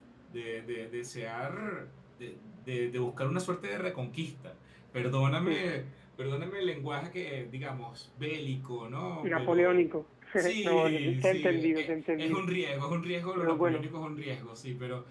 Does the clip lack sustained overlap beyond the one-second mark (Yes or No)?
No